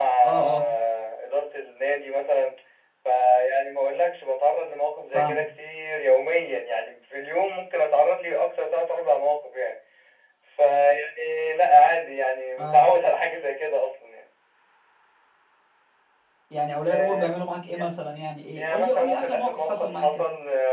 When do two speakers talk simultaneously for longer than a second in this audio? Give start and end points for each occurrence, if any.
18.6-20.2

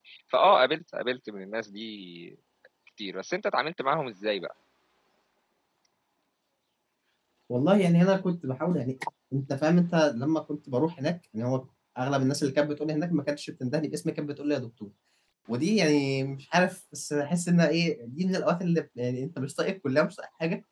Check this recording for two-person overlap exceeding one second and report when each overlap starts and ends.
none

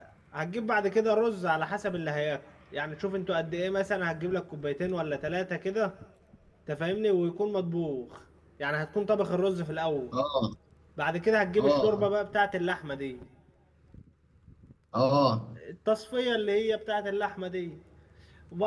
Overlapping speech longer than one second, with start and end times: none

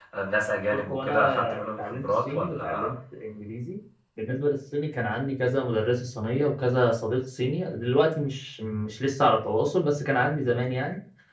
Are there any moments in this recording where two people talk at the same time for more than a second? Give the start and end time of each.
0.7-2.9

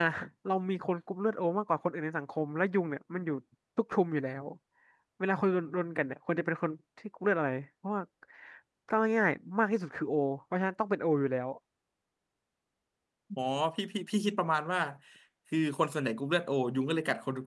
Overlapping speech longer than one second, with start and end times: none

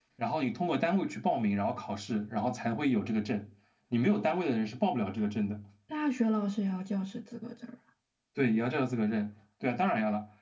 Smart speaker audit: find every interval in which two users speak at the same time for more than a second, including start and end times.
none

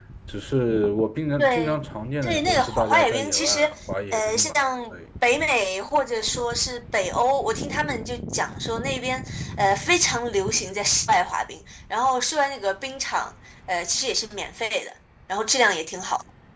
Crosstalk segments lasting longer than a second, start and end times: 2.2-3.7

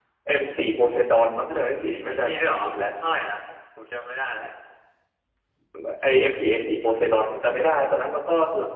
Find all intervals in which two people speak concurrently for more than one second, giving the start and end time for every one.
1.2-2.8

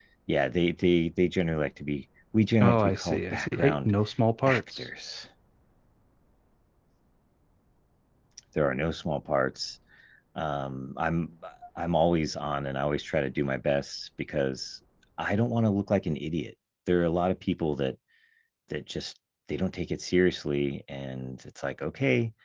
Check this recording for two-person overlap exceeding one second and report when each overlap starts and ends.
2.6-3.9

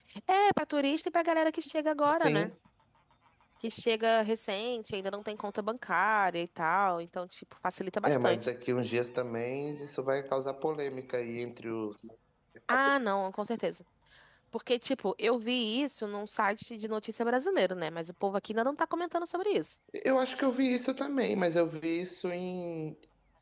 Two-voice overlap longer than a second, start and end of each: none

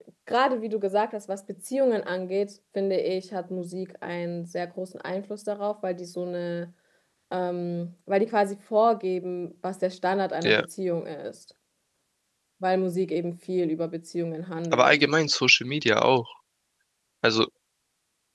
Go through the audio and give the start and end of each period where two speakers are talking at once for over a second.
none

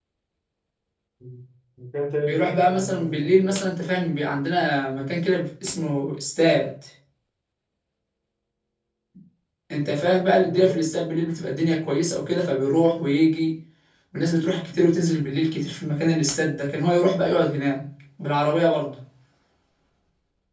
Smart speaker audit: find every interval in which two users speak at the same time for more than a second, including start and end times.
2.3-3.7

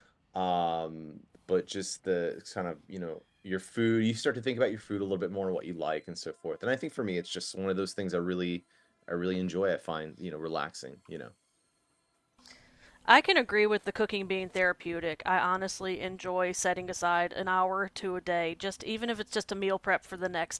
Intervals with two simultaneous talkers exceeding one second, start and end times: none

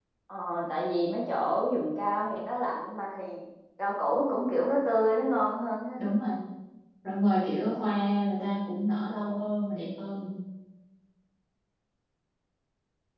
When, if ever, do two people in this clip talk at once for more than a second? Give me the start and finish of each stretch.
none

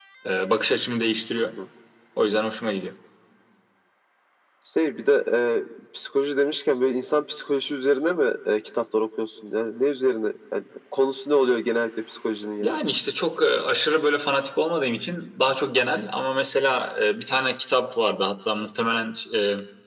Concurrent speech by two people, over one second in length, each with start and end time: none

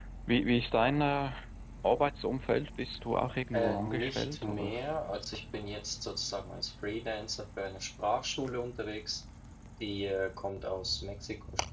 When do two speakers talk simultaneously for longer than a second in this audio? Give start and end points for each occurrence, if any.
3.5-4.8

